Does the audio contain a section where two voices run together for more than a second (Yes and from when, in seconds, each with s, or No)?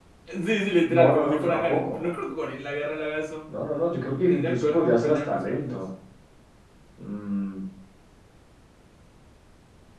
Yes, from 1.0 s